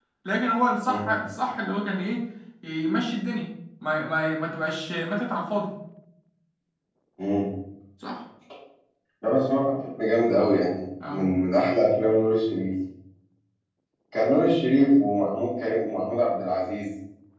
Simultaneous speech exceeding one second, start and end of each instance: none

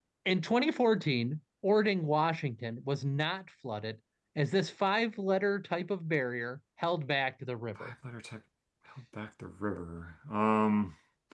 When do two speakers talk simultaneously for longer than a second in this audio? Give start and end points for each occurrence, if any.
none

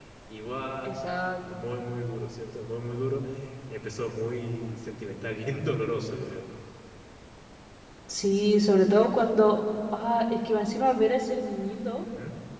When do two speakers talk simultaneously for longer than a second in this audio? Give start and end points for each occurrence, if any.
none

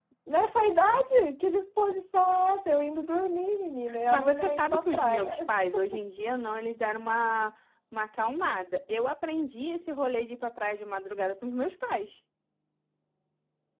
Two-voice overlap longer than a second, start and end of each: 4.1-5.5

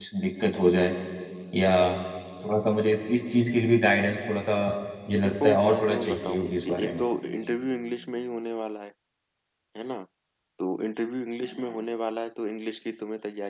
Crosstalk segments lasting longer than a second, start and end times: 5.2-7.0

